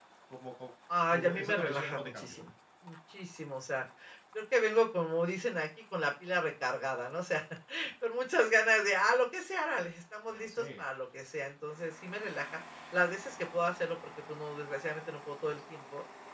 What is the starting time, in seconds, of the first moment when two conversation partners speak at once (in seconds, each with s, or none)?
1.1 s